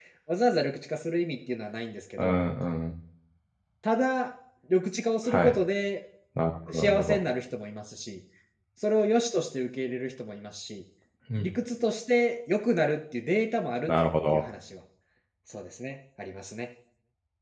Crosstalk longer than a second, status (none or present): none